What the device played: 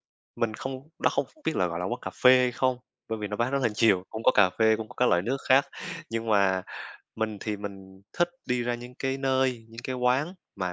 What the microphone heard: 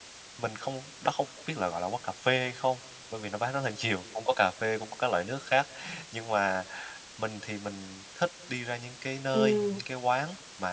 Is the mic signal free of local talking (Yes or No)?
No